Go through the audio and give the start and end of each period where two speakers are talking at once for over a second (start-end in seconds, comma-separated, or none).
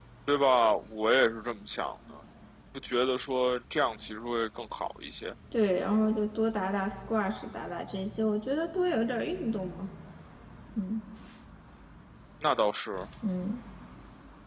none